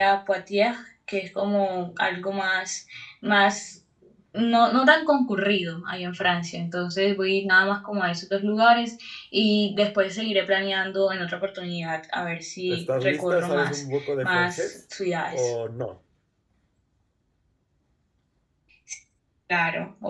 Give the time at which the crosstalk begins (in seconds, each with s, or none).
12.7 s